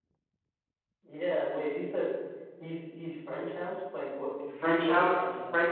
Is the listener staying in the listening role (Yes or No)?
No